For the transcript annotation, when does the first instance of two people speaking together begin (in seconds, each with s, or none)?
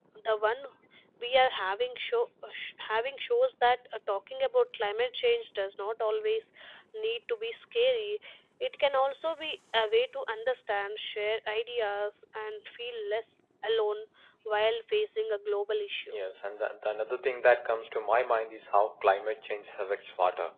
none